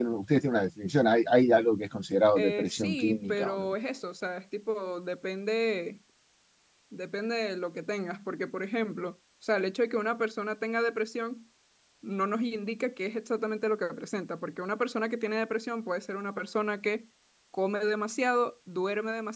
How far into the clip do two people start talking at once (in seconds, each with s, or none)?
2.4 s